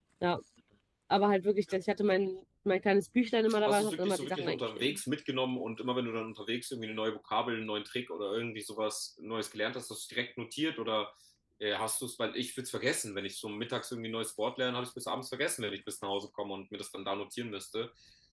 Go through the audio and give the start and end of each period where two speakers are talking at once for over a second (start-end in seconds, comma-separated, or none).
3.7-5.0